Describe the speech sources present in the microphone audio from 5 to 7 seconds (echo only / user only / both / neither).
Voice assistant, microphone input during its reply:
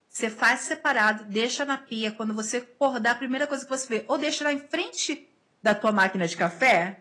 user only